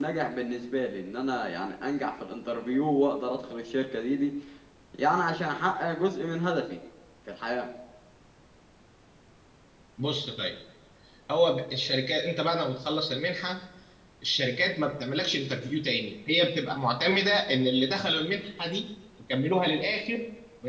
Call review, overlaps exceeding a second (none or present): none